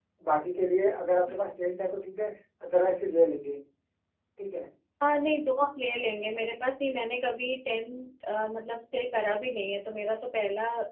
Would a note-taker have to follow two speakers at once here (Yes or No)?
No